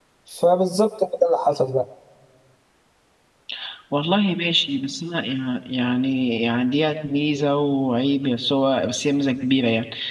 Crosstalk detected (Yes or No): No